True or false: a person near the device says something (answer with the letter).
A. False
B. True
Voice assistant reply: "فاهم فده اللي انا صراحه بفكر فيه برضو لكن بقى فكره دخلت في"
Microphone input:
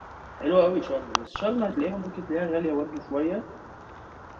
B